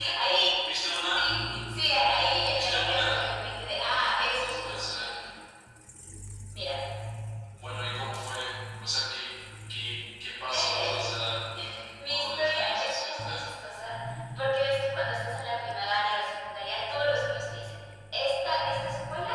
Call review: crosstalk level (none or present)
present